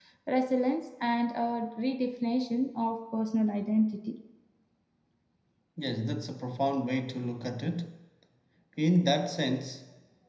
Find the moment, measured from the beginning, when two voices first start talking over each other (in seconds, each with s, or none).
none